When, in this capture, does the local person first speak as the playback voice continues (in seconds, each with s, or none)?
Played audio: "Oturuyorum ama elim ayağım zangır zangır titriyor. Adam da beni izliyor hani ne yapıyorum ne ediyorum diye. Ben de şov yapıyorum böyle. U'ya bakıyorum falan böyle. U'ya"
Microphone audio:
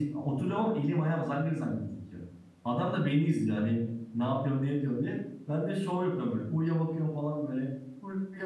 none